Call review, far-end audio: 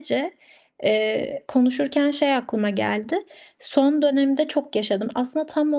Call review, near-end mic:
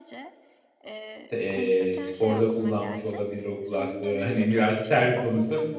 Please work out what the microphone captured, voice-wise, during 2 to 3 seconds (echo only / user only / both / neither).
both